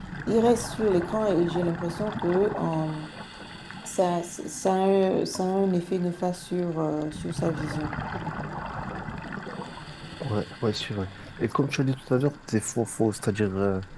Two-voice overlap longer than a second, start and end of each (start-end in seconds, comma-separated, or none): none